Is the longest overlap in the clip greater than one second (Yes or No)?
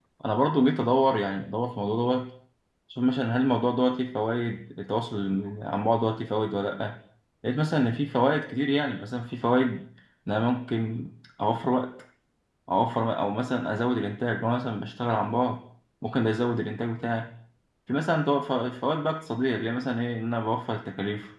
No